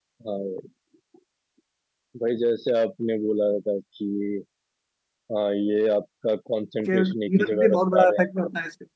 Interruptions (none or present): present